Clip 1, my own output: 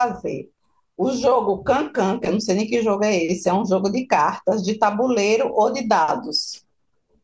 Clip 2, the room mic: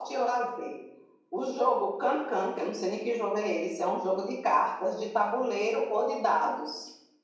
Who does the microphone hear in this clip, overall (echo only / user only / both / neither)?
echo only